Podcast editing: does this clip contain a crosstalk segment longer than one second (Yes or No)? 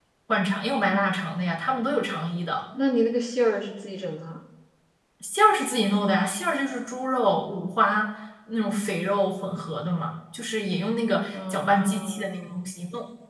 Yes